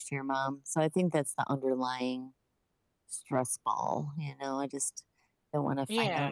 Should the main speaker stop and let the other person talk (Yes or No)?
No